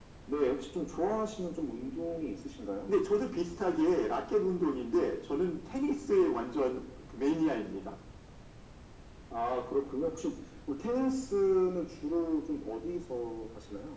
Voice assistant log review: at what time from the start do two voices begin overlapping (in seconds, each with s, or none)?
none